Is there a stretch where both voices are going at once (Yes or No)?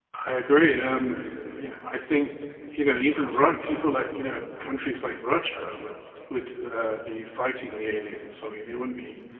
No